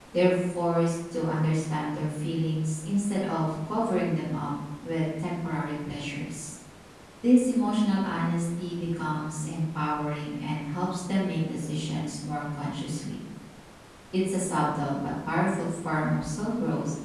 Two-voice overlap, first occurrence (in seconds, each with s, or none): none